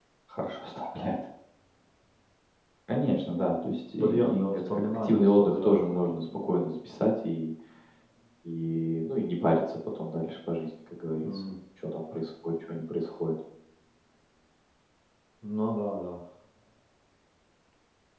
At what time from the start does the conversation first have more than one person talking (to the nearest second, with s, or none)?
4 s